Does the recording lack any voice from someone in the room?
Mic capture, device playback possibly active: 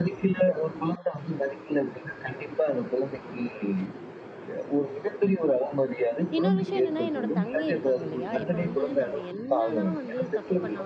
No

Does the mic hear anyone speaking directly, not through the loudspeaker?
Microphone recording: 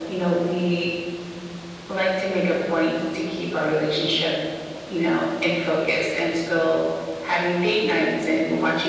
No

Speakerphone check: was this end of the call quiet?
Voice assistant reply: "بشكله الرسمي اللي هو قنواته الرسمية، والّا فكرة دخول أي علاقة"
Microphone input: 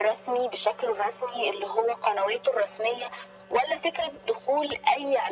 Yes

